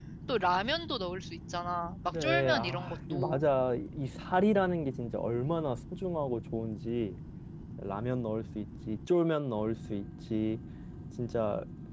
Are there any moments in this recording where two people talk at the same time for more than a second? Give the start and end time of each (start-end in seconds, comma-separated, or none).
2.1-3.5